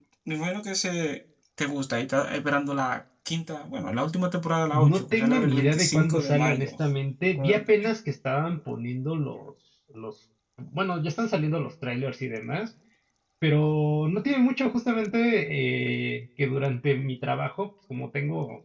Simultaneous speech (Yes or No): Yes